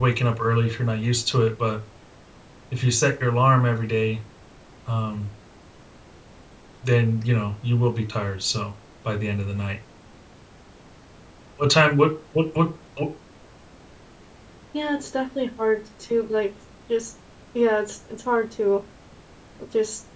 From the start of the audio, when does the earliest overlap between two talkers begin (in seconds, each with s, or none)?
none